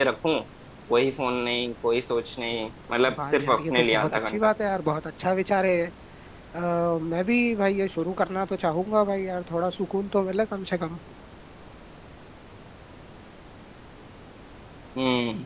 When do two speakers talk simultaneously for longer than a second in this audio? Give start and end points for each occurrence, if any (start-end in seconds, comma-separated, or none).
3.2-4.5